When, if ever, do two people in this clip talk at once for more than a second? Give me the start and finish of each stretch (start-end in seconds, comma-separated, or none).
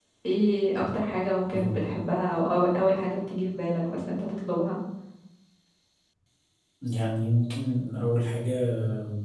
none